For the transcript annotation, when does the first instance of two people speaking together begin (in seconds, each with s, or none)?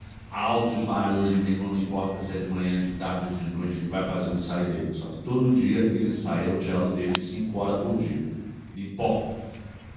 none